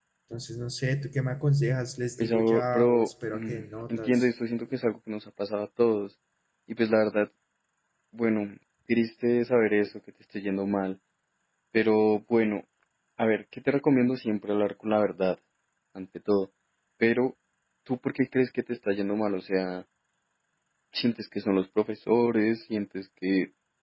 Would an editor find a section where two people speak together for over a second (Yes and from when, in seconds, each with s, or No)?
Yes, from 2.2 s